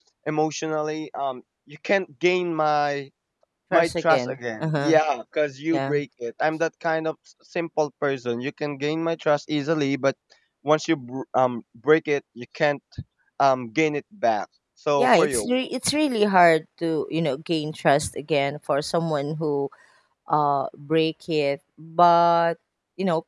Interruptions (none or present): present